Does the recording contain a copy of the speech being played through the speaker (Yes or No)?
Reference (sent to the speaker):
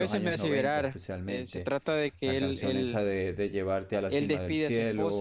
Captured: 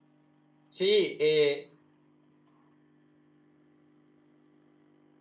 No